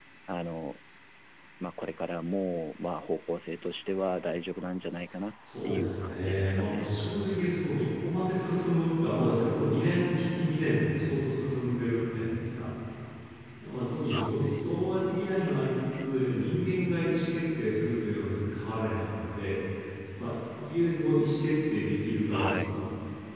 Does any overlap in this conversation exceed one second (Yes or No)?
Yes